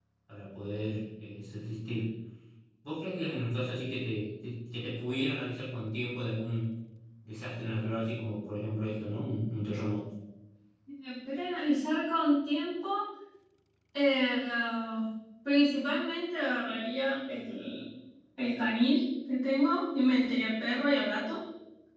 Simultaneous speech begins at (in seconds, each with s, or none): none